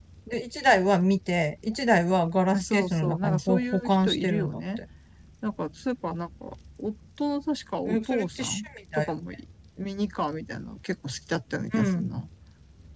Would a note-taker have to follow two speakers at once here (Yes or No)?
Yes